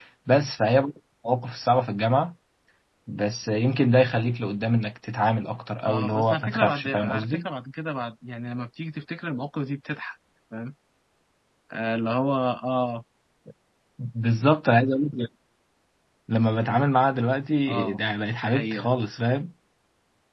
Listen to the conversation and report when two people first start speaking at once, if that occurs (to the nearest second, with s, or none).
6 s